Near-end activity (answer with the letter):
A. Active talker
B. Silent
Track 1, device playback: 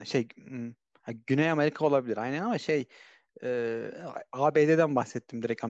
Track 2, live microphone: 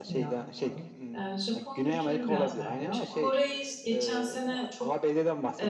A